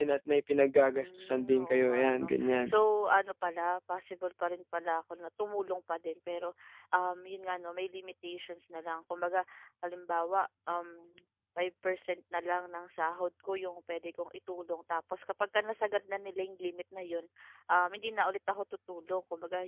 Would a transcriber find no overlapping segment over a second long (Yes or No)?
No